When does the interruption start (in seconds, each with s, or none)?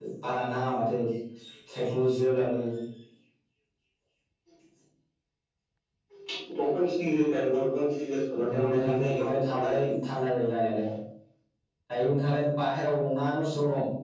8.3 s